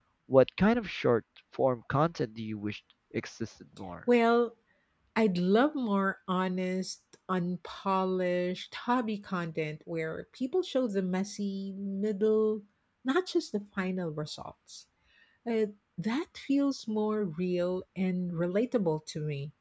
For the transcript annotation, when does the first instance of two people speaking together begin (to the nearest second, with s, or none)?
none